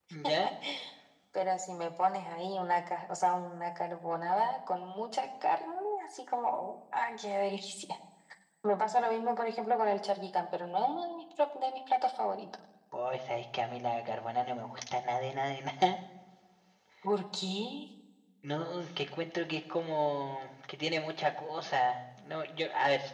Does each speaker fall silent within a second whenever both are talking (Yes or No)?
Yes